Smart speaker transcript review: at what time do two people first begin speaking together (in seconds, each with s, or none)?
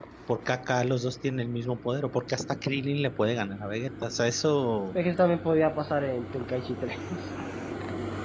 none